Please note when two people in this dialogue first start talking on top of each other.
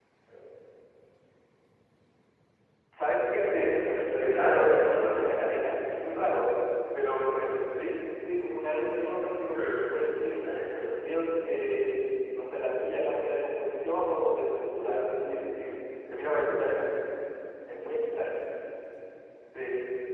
3.5 s

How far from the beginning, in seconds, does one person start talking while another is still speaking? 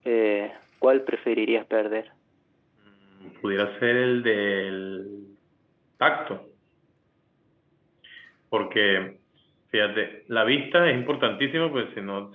none

